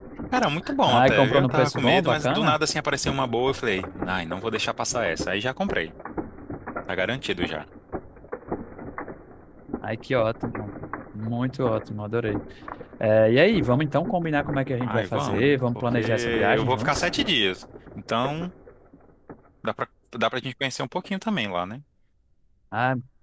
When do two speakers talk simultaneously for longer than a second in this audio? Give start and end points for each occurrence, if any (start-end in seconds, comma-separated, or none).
0.9-2.5, 14.8-17.1